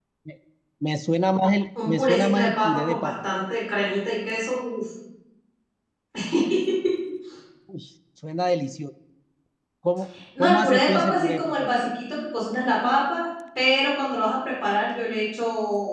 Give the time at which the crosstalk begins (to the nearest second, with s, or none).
2 s